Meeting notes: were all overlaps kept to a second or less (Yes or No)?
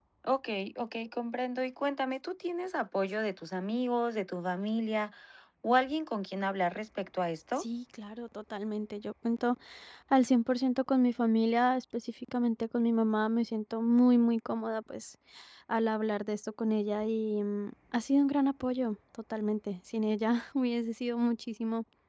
Yes